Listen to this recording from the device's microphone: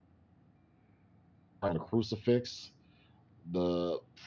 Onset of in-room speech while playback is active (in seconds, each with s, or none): 1.6 s